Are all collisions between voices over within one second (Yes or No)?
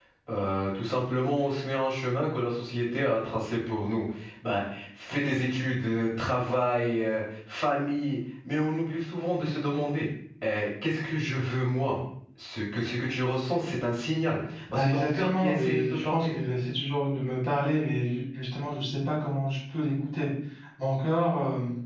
No